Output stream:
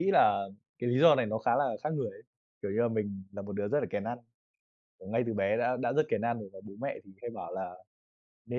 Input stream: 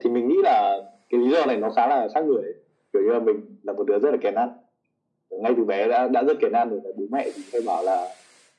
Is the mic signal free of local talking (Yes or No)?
Yes